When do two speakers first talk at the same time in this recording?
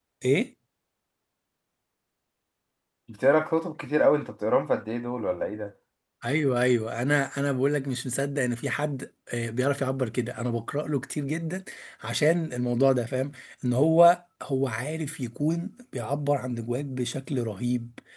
none

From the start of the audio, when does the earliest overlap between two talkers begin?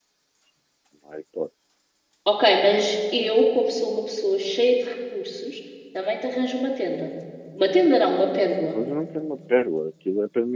none

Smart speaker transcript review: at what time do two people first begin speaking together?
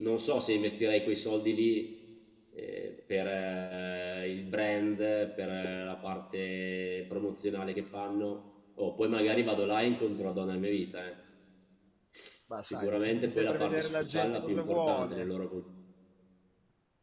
13 s

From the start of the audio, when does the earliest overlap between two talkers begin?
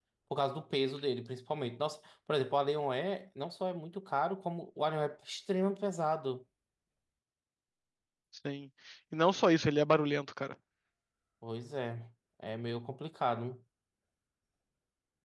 none

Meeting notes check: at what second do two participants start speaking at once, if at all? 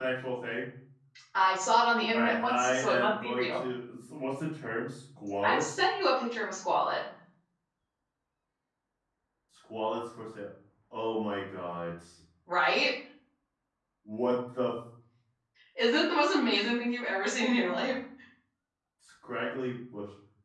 2 s

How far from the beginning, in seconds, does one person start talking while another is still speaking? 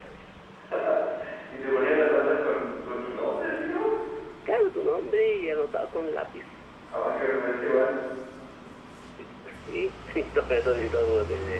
none

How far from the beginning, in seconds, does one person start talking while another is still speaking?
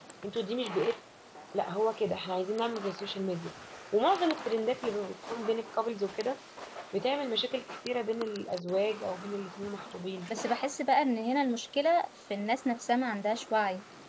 none

